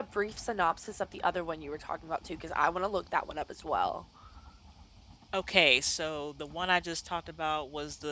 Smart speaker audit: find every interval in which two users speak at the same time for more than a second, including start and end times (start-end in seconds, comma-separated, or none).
none